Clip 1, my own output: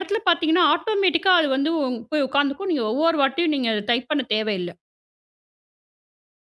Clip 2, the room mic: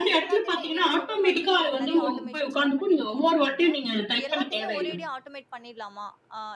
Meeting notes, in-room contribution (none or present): present